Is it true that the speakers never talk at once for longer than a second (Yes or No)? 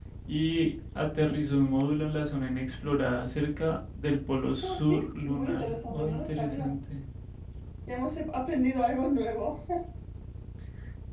No